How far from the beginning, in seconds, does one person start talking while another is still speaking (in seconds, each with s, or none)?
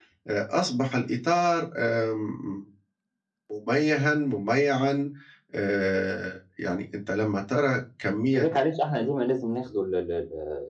none